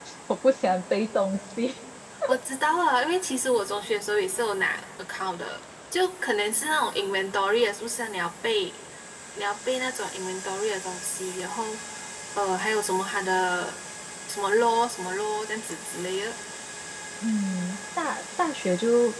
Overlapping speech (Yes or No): No